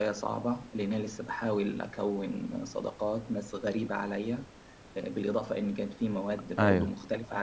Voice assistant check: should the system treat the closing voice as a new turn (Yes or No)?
No